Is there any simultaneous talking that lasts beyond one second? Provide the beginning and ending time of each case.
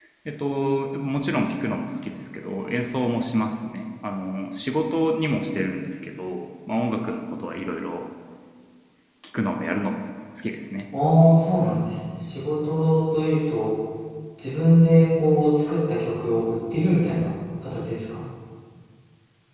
none

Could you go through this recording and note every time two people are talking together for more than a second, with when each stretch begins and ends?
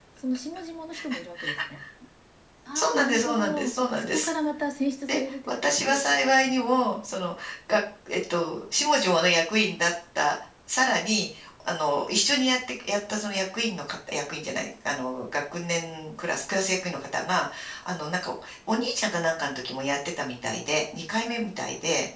2.8-4.3, 5.1-6.5

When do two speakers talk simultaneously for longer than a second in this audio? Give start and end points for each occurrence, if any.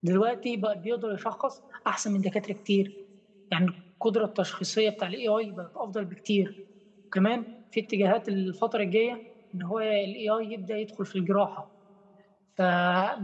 none

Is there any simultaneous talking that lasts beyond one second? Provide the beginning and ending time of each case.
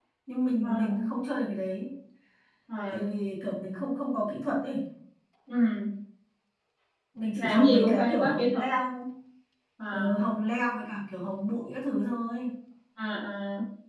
7.4-8.6

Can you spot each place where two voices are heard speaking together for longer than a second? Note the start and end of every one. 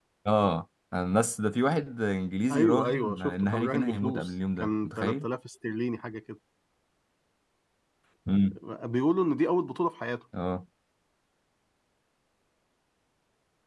2.5-5.2

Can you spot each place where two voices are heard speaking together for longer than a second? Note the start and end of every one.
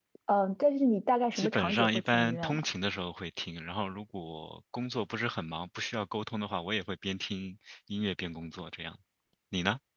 1.4-2.6

